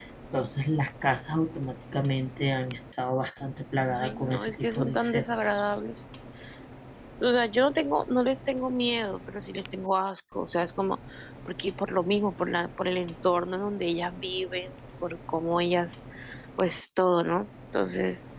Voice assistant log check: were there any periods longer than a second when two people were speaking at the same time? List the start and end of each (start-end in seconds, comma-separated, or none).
3.9-5.6